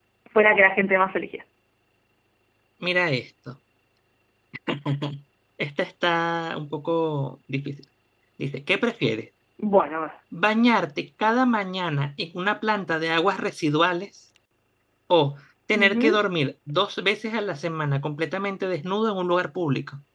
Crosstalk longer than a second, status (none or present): none